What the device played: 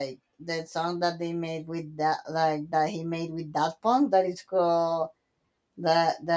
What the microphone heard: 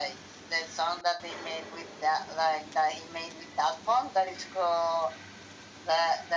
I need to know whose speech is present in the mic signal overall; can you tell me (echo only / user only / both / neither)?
echo only